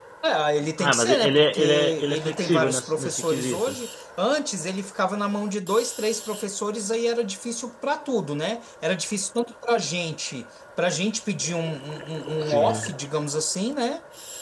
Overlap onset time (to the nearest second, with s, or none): 1 s